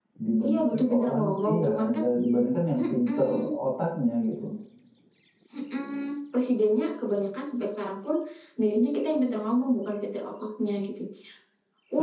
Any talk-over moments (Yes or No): Yes